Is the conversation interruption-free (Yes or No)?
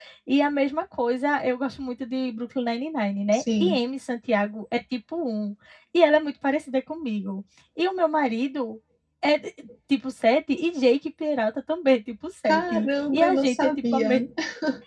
No